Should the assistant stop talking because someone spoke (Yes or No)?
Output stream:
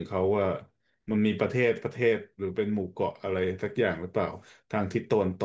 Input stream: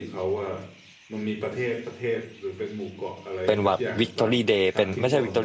Yes